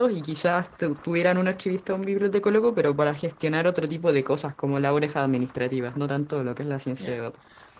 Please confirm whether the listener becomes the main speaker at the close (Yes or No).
Yes